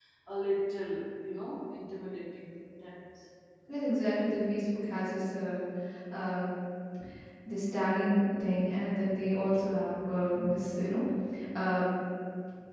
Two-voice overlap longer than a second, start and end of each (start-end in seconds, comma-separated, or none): none